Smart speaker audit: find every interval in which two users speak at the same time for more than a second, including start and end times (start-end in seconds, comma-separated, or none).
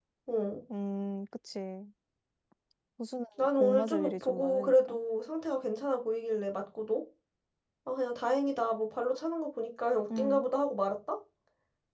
3.4-5.0